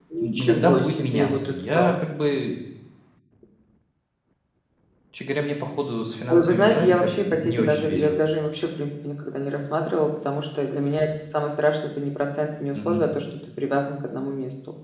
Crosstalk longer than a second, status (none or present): present